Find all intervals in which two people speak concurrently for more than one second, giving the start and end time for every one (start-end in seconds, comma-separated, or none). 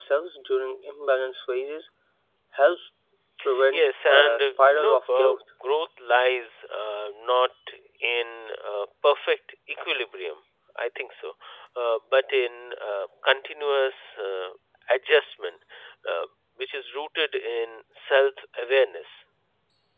3.7-5.4